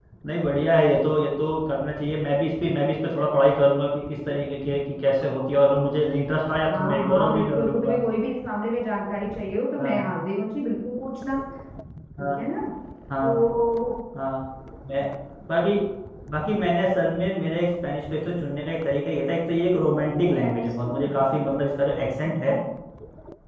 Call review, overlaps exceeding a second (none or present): present